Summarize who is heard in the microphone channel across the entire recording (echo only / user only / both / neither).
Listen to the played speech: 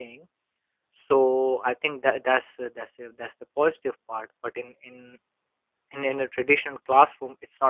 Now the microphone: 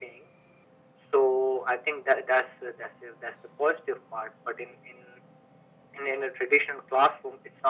echo only